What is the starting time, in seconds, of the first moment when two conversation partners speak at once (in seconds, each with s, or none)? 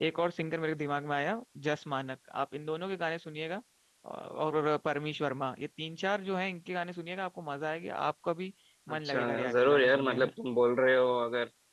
8.9 s